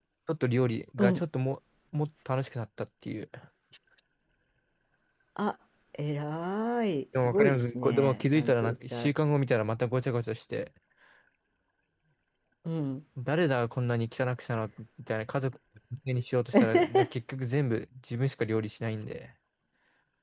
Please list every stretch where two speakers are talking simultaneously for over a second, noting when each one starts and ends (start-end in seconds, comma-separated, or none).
7.2-9.1